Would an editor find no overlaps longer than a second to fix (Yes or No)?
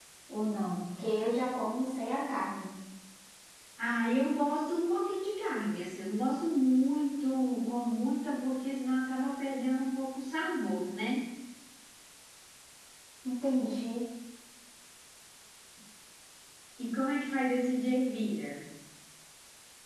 Yes